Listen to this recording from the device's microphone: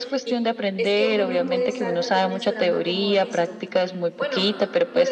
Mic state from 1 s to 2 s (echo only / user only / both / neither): both